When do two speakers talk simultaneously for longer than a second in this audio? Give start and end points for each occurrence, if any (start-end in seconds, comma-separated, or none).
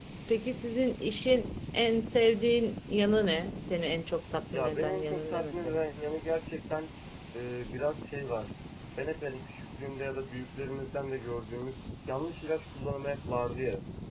4.5-5.8